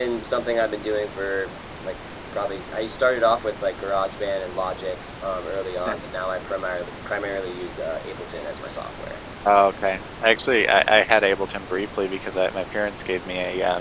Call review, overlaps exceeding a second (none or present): none